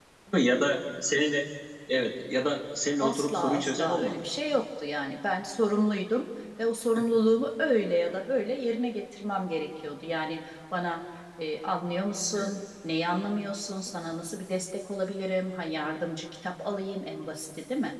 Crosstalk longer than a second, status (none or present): present